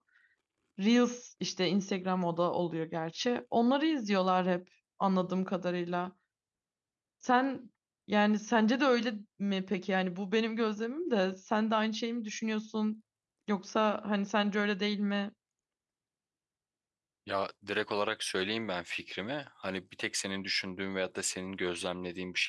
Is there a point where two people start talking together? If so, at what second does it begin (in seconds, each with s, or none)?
none